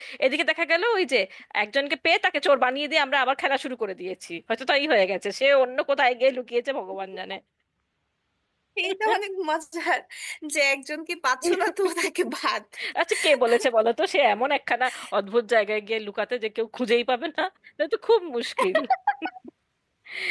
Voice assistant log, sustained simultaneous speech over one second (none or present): none